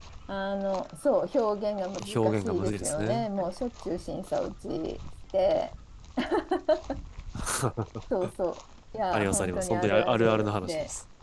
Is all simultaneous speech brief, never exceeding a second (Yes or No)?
No